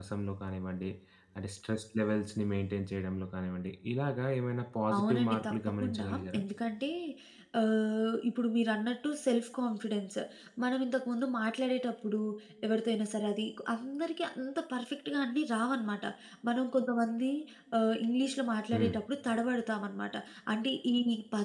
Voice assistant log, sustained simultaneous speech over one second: present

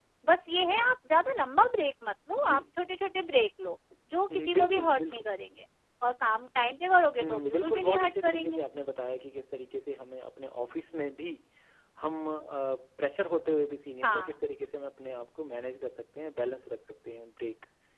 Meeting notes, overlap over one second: present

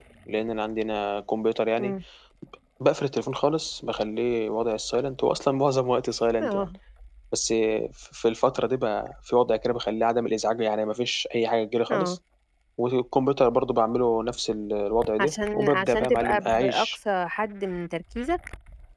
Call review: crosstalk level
present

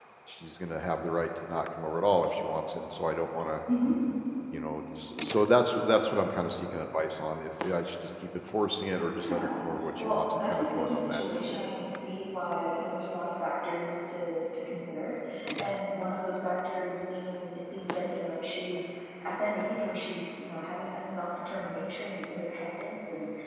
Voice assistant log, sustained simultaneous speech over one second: present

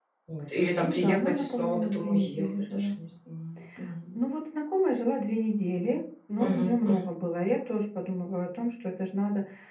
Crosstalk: present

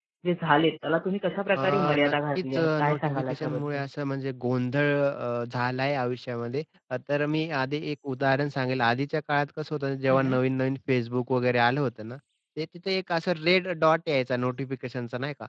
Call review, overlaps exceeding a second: present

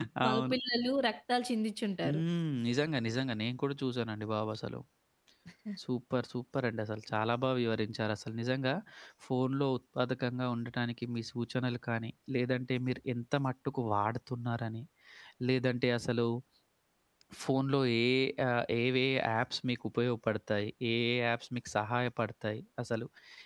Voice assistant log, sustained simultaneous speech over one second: none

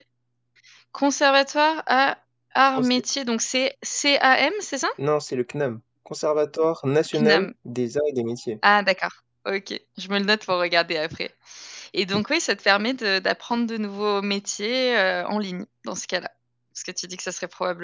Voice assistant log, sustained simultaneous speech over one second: none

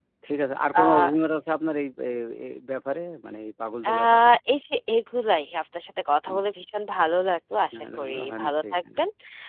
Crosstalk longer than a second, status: present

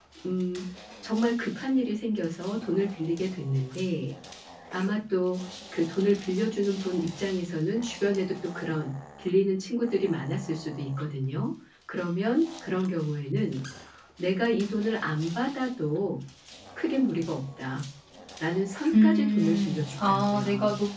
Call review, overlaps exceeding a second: present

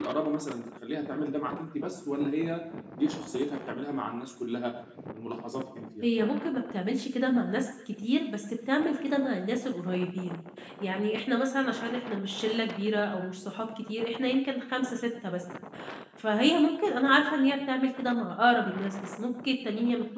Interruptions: none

